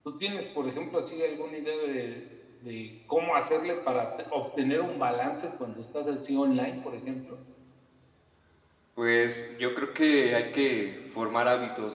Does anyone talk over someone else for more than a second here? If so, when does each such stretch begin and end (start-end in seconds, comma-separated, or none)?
none